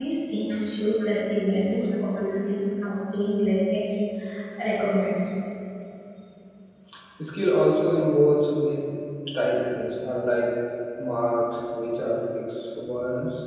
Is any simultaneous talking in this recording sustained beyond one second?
No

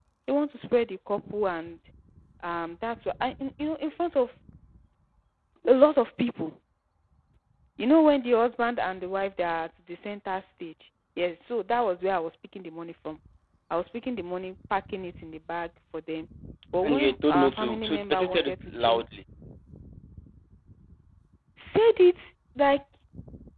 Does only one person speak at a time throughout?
No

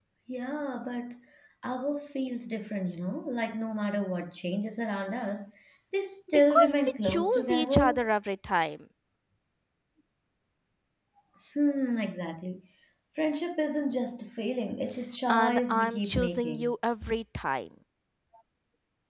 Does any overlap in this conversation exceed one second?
Yes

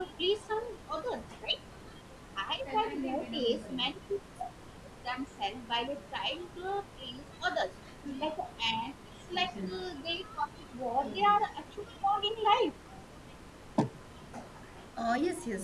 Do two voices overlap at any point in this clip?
Yes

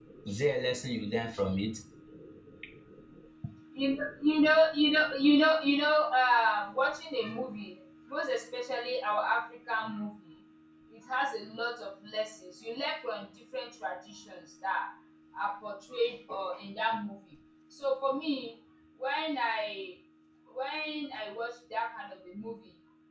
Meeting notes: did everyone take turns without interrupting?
Yes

